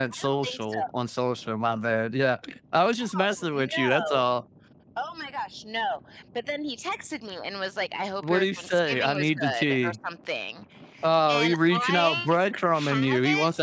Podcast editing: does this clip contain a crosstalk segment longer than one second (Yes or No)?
Yes